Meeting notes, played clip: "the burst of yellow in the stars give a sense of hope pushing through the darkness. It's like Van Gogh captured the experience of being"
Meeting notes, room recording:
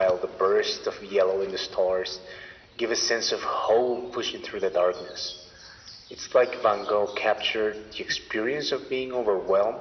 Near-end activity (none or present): none